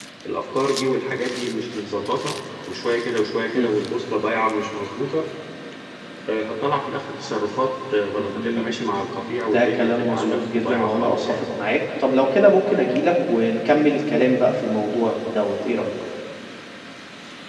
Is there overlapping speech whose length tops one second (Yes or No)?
Yes